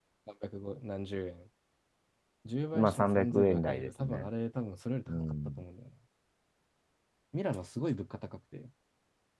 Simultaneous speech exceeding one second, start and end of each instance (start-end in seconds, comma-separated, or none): 2.7-4.3